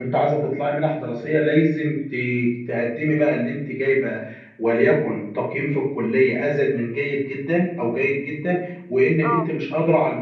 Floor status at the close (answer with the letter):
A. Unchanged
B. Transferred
A